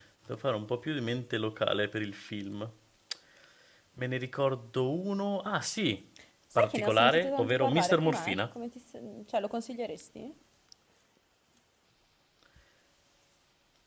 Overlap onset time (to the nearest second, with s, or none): 7 s